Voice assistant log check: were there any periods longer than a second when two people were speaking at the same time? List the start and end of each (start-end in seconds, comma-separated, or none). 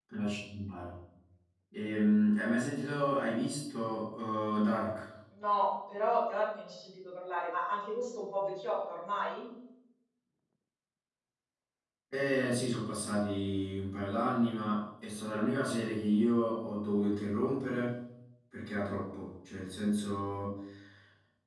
none